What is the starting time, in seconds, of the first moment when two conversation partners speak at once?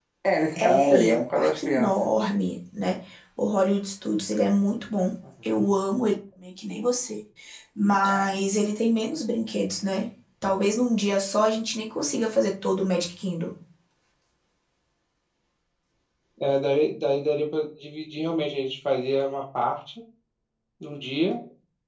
0.6 s

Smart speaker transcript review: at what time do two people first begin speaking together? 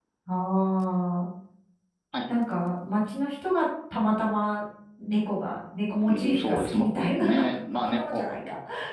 6.0 s

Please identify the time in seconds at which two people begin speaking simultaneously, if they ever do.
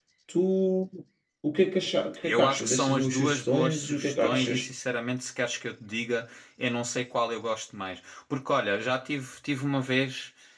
2.2 s

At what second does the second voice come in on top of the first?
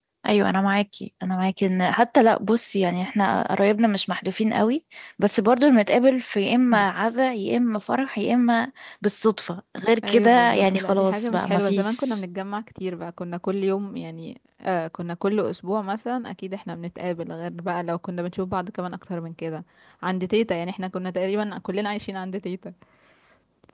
10.0 s

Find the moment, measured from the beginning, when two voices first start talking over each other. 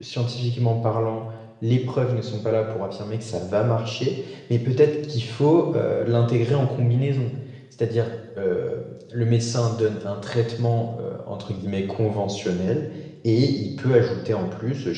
none

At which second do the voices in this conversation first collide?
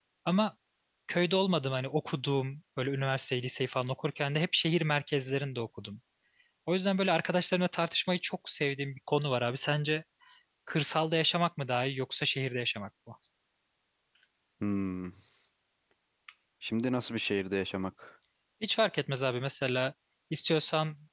none

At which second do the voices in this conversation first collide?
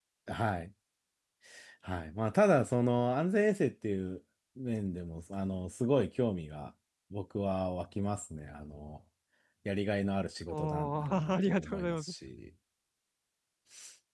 10.5 s

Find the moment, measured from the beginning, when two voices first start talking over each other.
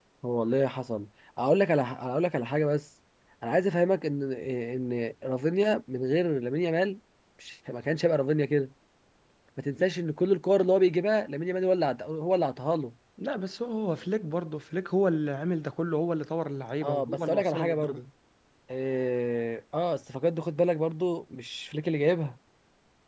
16.8 s

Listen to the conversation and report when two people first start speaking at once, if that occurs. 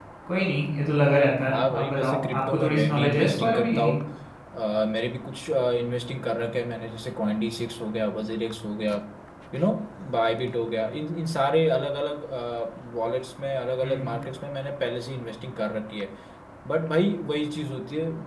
1.5 s

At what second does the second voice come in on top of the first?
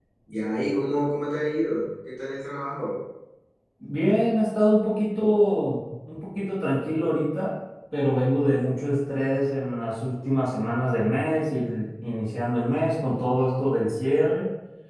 none

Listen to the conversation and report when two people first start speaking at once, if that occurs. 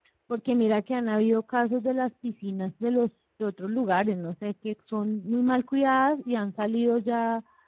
none

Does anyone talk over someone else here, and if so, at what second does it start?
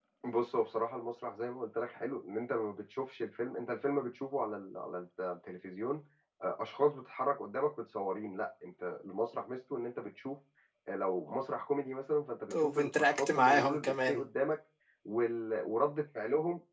12.5 s

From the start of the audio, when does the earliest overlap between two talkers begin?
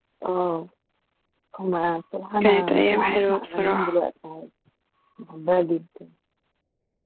2.4 s

